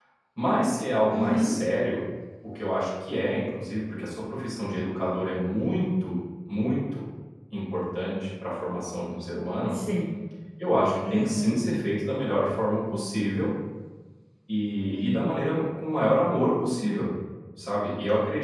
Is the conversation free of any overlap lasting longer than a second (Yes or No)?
Yes